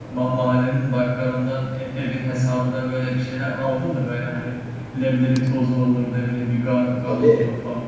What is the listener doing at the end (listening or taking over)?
taking over